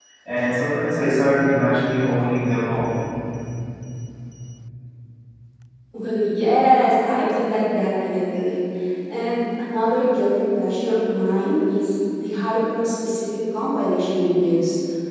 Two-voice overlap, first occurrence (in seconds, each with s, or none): none